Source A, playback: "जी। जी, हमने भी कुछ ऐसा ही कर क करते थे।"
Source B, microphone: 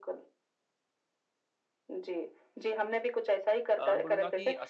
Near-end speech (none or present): present